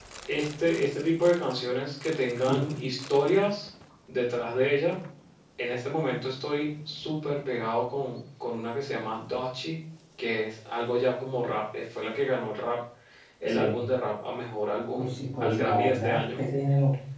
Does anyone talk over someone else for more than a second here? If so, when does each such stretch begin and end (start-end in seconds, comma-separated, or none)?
15.0-16.4